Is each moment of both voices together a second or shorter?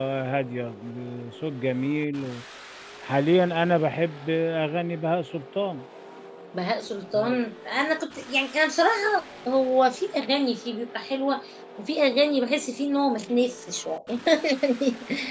Yes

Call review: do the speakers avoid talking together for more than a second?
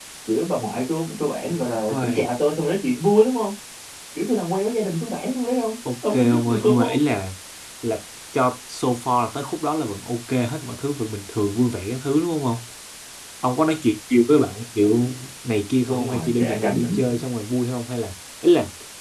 No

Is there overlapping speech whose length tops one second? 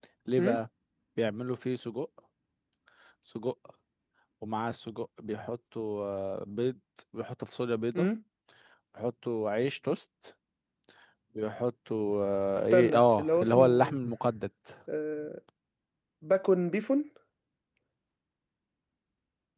Yes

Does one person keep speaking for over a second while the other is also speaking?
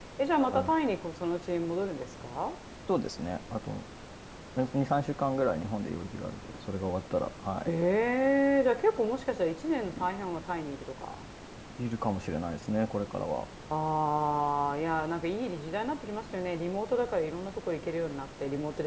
No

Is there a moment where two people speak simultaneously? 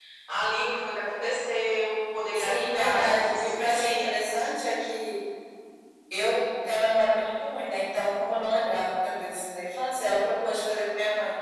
Yes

